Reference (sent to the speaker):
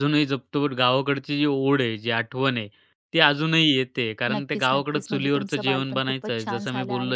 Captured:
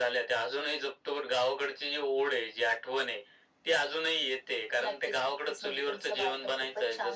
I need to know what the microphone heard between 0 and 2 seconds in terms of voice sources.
echo only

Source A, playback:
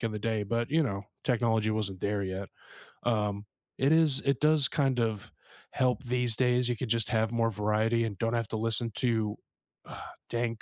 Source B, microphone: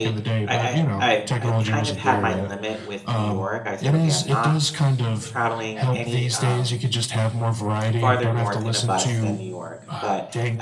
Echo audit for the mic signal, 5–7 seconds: both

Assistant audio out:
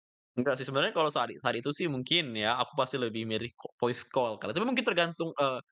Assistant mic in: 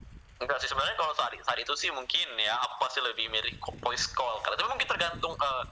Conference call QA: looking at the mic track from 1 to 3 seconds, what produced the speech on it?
echo only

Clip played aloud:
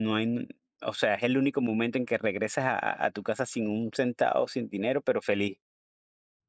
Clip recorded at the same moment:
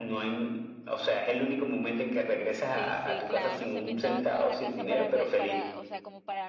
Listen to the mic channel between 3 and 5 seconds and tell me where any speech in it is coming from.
both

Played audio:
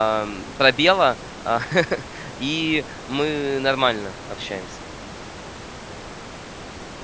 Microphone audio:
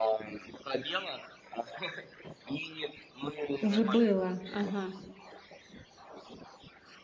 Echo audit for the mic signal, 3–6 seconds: both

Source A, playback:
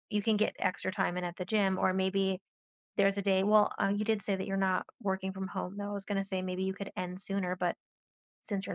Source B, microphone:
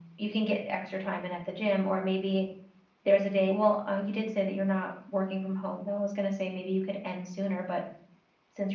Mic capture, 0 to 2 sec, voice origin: echo only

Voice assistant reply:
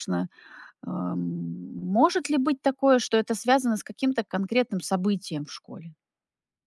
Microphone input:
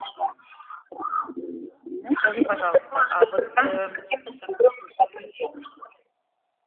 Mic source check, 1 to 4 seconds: both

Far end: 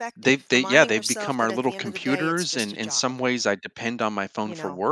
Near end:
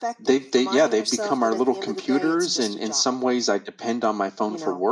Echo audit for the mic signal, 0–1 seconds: echo only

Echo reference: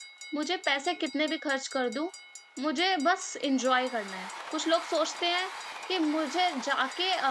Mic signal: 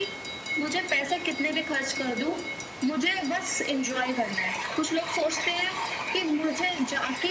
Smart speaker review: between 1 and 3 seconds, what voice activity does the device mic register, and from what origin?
echo only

